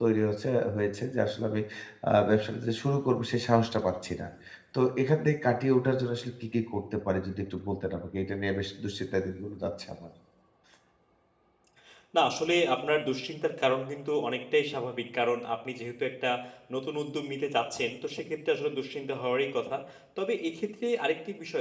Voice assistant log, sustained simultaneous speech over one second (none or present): none